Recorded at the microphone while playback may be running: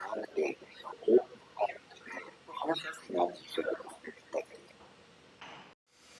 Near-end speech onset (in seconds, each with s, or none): none